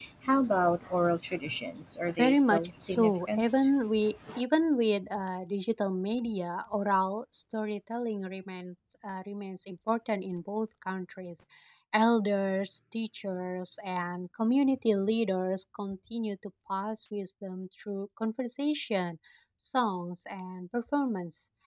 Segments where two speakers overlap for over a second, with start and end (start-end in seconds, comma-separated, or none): 2.2-3.4